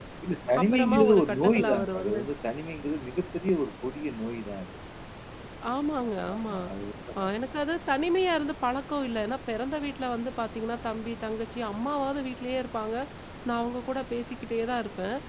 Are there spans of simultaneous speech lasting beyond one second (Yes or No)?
Yes